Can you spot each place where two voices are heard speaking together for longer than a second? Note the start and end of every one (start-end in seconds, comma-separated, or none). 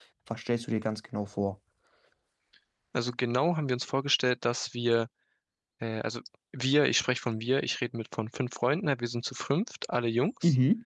none